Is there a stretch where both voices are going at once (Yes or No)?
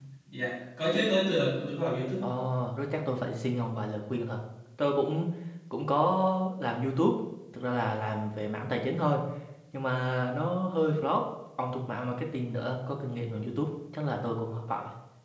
No